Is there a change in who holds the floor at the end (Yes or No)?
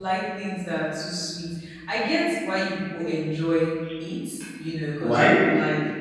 No